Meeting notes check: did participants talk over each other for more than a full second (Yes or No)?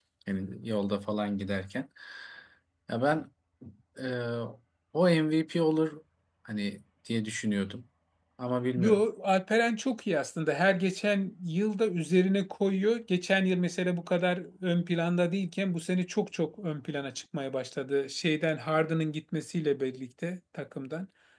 No